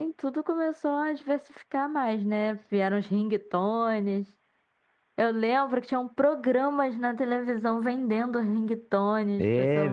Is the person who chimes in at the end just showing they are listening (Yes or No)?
No